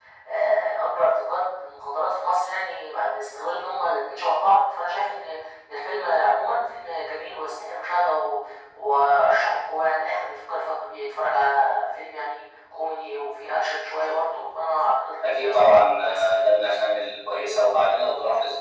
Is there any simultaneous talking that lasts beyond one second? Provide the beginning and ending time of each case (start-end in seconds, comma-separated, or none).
15.2-16.5